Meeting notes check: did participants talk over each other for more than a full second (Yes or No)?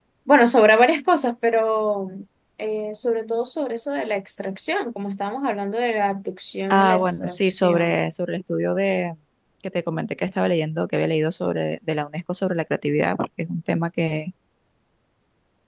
Yes